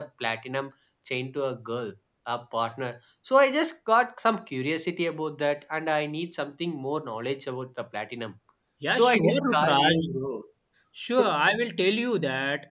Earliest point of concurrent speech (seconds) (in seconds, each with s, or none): 8.9 s